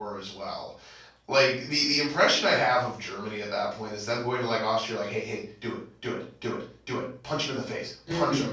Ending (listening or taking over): taking over